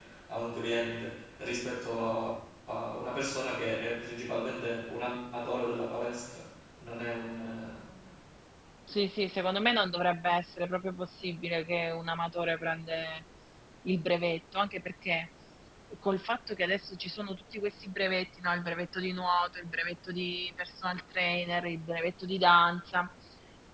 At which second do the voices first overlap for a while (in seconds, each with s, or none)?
none